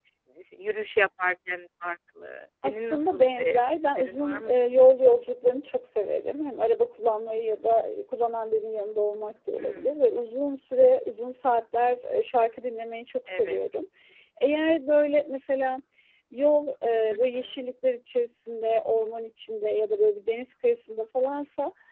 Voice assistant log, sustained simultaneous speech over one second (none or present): present